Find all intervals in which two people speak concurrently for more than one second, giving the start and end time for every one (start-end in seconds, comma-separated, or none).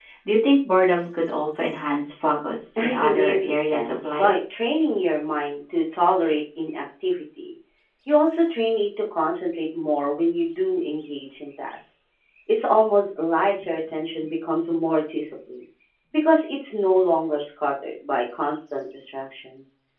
2.8-4.3